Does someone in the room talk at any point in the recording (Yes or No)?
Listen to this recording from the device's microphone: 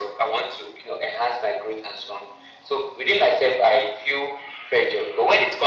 No